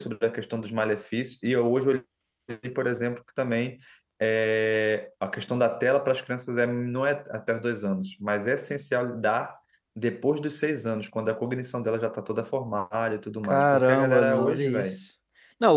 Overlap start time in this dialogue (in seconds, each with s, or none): 13.4 s